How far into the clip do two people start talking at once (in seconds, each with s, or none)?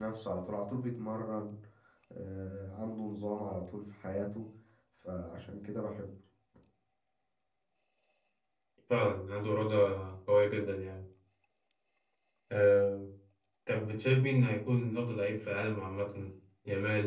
none